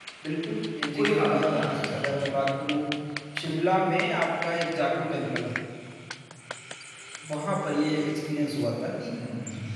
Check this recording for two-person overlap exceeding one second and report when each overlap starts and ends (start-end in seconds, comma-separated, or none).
0.9-2.2